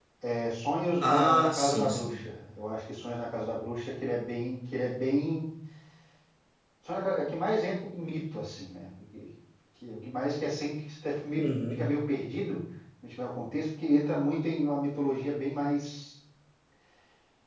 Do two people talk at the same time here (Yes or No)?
Yes